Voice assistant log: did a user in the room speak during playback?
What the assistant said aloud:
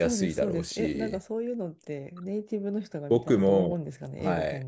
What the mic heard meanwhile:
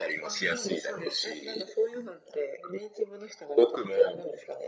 No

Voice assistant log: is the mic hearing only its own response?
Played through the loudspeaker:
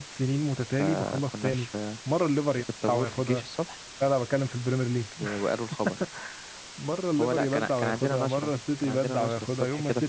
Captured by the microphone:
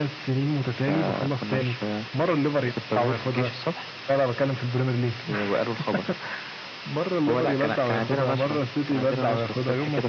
Yes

